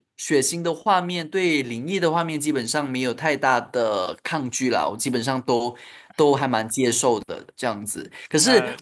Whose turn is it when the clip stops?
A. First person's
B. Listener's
A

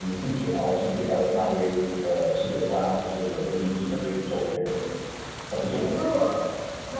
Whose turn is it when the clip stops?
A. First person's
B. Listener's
B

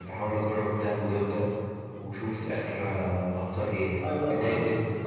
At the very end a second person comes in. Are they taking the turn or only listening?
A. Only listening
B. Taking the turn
B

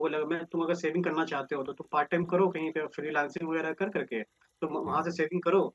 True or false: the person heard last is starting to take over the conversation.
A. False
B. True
A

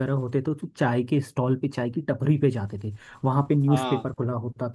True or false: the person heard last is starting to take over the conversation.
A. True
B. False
B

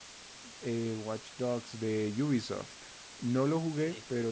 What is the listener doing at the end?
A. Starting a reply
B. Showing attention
B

